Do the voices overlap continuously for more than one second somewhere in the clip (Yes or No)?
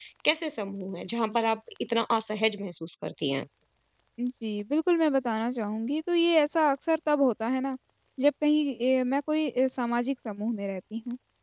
No